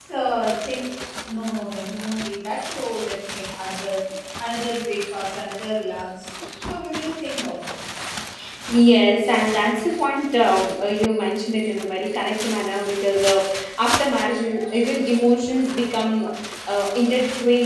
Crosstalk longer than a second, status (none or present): none